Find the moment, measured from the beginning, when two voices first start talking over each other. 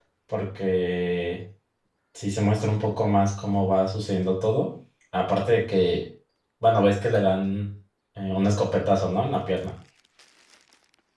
none

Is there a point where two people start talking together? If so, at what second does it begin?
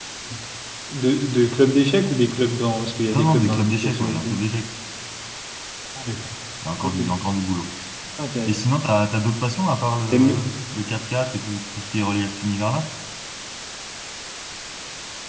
3 s

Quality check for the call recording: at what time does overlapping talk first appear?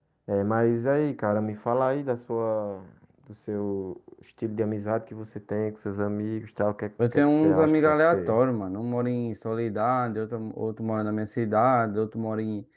7 s

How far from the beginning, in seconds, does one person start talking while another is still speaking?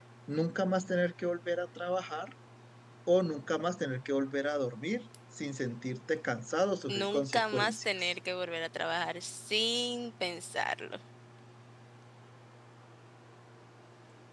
7 s

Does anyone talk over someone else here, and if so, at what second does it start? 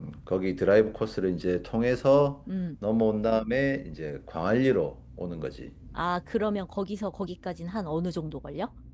none

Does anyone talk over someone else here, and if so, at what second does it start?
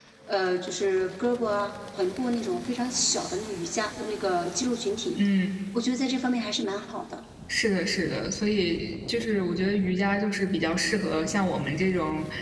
none

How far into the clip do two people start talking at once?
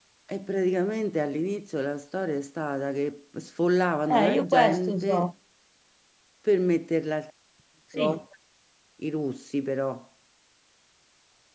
4 s

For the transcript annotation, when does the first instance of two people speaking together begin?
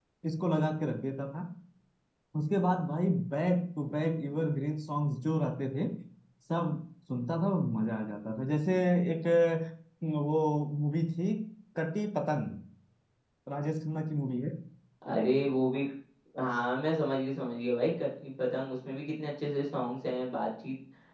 none

